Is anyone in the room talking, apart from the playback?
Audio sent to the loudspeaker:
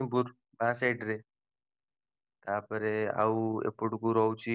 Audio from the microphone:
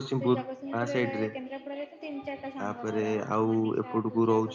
Yes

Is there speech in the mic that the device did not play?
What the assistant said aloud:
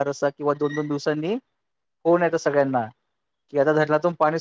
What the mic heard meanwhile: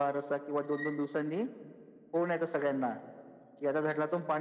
No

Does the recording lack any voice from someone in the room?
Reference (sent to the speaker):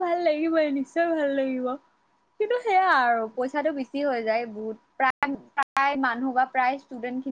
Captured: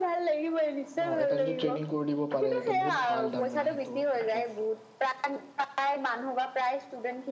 No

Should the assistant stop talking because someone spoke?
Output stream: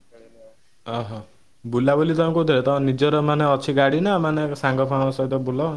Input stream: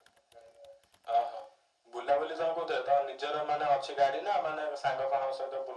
No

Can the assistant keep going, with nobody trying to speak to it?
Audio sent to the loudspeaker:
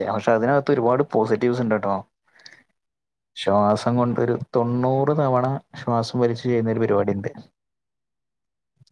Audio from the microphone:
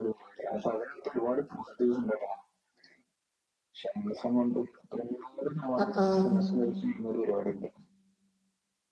No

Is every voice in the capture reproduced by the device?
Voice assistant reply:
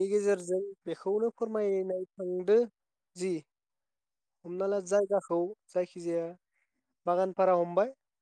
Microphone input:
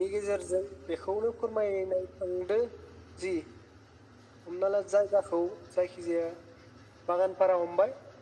Yes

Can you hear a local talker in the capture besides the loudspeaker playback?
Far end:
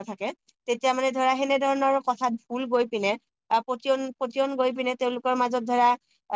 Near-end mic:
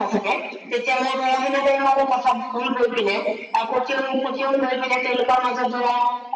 No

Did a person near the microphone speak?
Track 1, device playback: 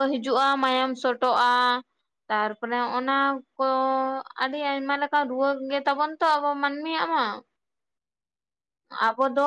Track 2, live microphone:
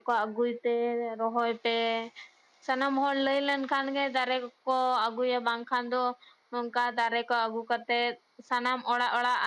Yes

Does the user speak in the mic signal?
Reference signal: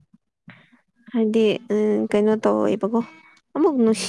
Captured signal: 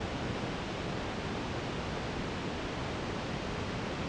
No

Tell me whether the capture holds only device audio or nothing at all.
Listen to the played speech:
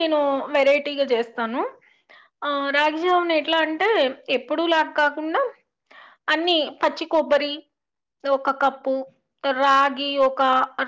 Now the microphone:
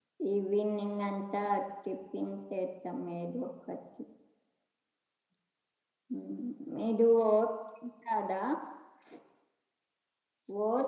No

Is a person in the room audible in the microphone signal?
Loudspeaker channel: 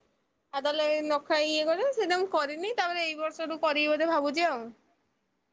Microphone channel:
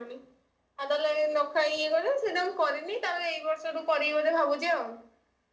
No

